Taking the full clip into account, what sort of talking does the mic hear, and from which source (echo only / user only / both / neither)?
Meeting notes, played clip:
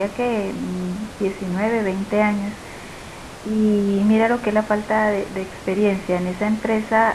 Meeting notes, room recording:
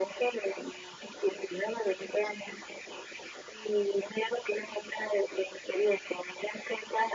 echo only